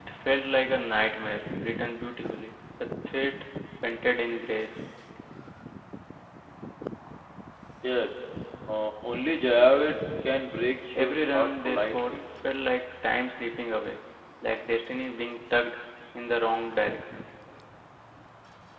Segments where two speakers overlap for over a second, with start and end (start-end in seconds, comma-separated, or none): 10.9-12.2